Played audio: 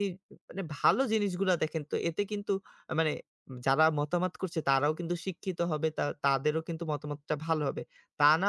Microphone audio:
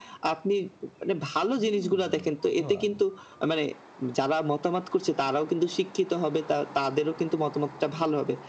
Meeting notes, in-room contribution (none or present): present